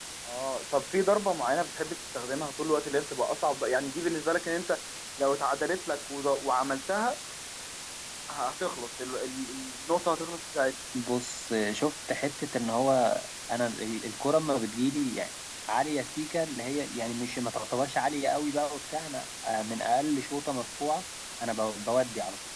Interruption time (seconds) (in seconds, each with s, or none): none